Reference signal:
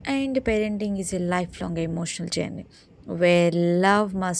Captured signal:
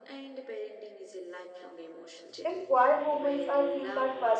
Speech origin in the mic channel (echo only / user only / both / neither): both